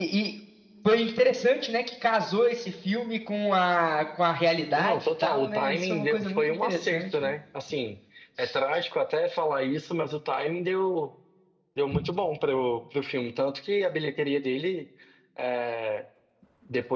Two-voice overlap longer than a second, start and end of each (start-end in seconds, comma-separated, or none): 4.8-7.3